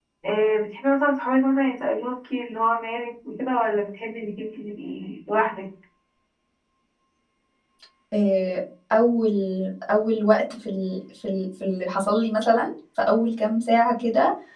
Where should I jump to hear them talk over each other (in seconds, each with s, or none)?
none